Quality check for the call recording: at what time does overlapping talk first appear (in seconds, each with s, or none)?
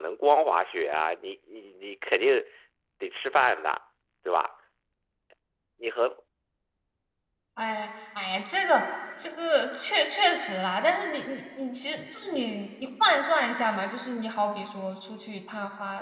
none